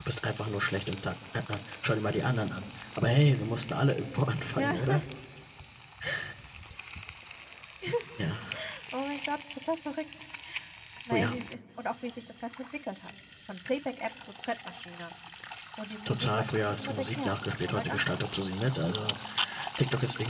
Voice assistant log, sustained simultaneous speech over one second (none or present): present